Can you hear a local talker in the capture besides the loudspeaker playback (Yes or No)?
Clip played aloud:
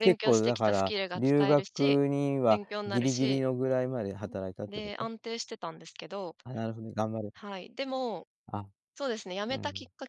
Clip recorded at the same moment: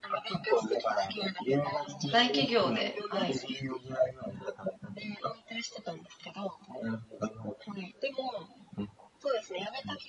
Yes